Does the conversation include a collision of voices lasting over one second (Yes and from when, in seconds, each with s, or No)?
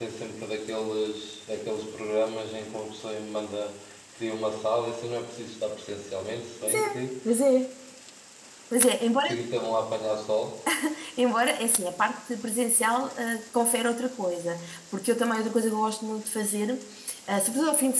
No